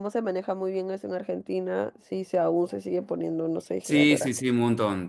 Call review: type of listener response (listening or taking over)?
taking over